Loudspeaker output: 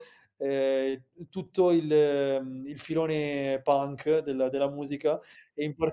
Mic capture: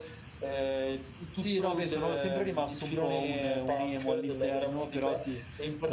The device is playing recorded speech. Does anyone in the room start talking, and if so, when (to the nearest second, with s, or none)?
1 s